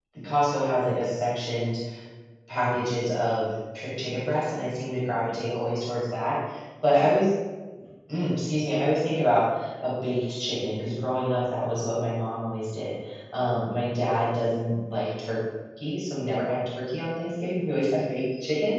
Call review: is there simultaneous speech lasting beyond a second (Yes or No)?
No